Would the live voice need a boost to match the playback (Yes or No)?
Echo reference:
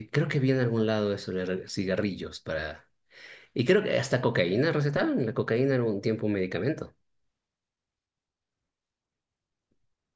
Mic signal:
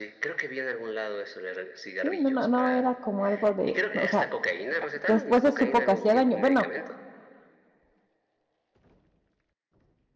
No